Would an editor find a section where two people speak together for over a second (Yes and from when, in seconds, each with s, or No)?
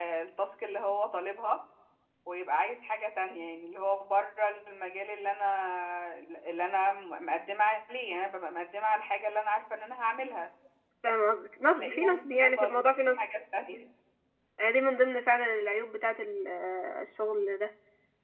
Yes, from 11.8 s